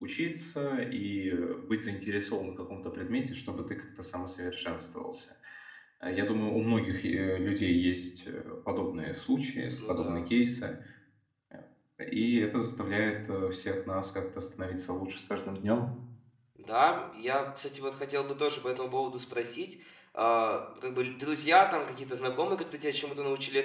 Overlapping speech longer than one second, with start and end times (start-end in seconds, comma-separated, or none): none